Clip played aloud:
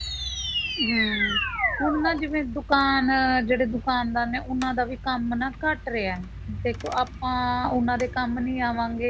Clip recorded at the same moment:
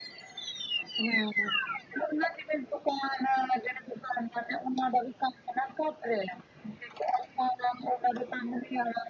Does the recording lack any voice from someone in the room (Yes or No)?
Yes